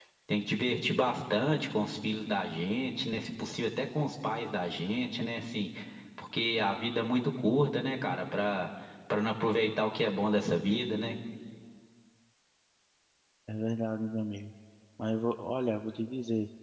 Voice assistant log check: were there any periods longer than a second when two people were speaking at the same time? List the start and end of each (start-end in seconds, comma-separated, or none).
none